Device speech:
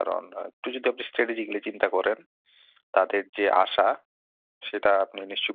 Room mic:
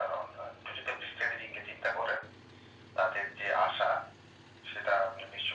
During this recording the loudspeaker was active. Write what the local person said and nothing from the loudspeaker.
none

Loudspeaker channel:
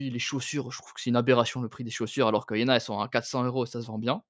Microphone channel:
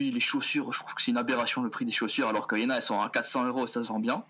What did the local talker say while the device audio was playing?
none

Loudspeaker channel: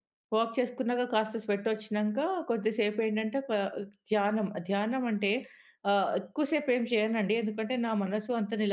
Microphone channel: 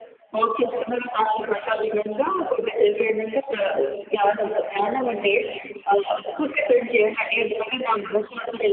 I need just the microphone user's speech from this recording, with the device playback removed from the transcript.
none

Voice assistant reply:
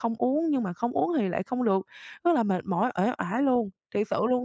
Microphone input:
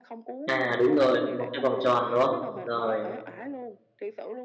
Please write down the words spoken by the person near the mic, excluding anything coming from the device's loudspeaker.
À, đúng rồi, một cái vòng tròn, đúng không? Rồi,

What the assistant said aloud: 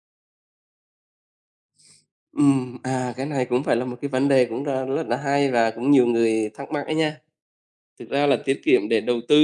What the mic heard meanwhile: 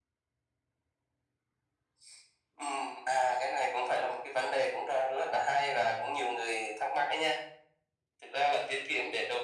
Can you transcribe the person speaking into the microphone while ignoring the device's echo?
none

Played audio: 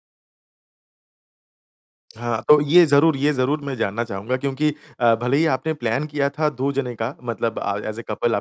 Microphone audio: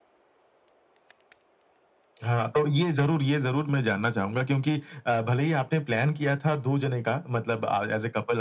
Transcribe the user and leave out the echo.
none

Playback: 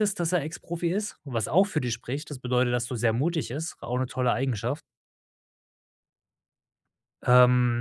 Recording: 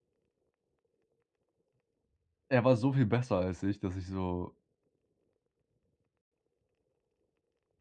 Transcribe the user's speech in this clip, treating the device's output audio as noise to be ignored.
er war so viel besser als ich, dass ich so

